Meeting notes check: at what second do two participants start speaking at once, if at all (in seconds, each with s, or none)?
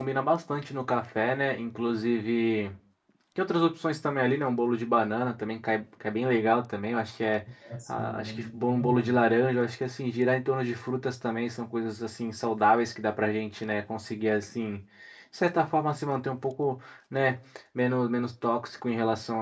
7.9 s